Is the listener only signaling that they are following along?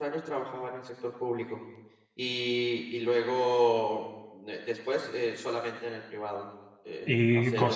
No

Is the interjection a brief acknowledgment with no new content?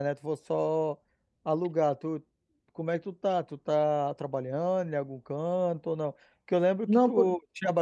Yes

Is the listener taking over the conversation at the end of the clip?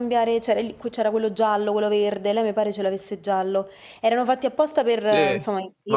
Yes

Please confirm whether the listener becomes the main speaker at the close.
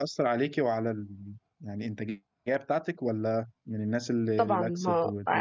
Yes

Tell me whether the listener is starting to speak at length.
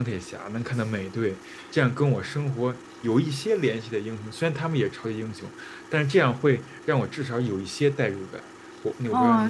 Yes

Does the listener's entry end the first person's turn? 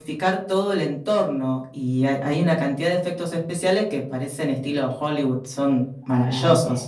Yes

